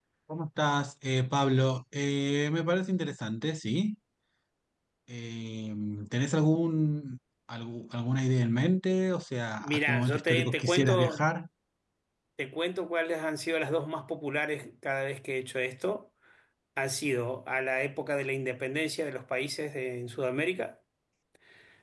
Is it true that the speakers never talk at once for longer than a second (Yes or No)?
No